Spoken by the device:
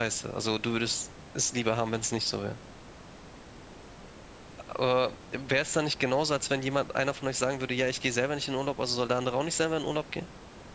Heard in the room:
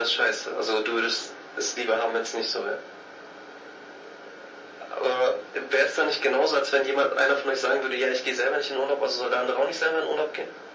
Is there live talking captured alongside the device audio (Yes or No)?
No